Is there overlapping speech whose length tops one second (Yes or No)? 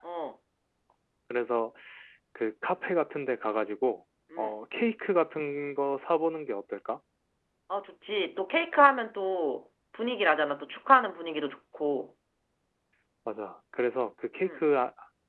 No